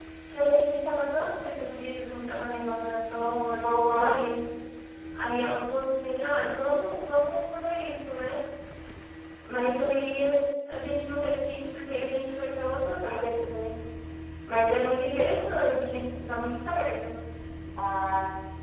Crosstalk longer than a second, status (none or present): none